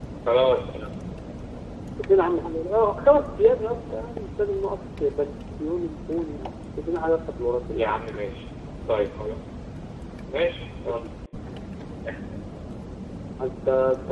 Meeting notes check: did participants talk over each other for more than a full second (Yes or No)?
No